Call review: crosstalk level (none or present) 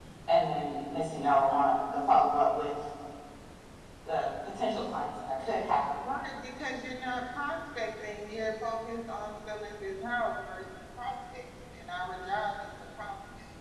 none